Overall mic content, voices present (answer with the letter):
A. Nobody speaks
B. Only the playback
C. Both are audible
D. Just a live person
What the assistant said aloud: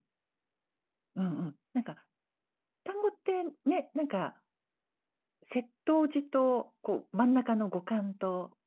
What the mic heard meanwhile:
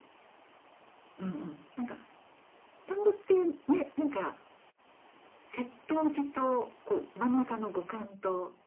B